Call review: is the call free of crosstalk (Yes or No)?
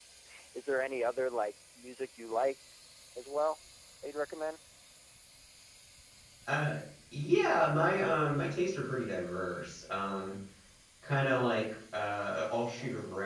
Yes